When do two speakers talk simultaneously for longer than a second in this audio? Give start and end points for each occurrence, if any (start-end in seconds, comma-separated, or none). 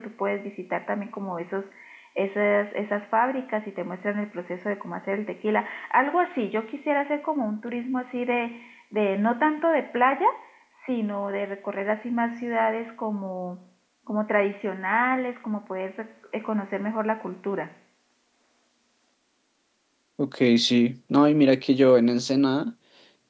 none